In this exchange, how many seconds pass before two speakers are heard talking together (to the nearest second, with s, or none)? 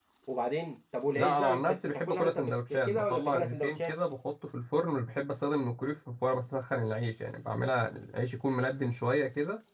1 s